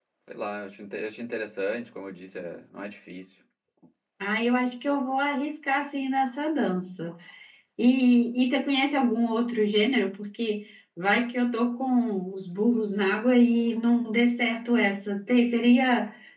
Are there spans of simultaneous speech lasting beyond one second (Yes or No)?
No